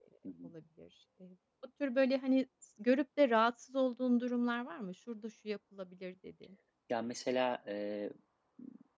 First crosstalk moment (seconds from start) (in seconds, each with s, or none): none